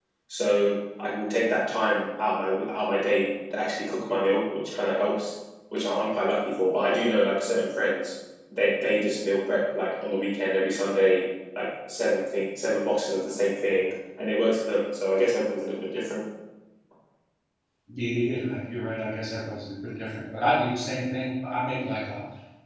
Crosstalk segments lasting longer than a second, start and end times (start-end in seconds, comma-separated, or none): none